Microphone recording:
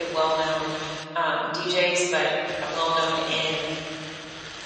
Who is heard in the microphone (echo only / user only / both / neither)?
user only